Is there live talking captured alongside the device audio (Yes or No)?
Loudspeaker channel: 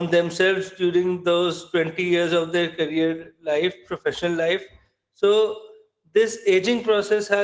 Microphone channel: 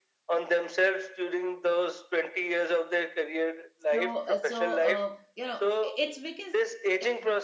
Yes